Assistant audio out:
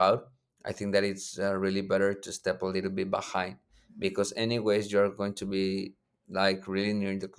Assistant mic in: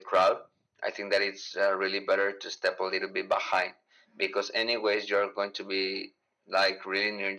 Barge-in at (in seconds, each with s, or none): none